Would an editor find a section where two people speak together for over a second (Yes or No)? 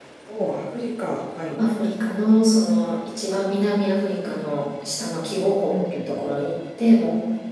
No